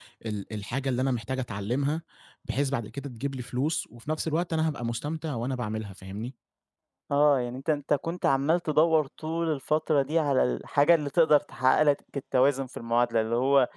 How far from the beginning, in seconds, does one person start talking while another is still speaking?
none

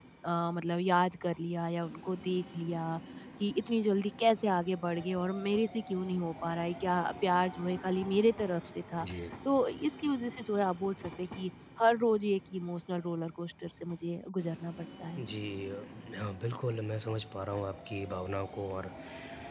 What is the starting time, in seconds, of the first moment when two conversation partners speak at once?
none

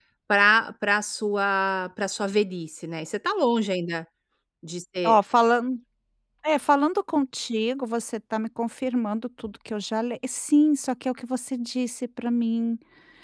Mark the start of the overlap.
none

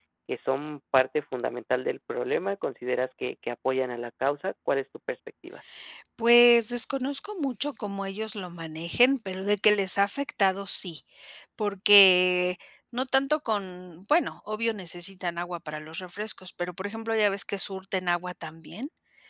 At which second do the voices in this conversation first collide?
none

